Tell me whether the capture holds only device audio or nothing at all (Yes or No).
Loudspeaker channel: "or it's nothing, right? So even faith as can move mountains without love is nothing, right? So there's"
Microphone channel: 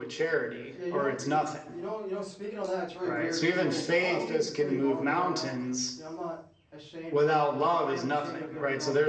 No